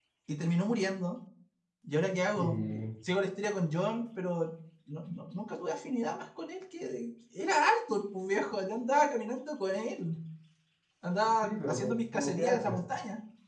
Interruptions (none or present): present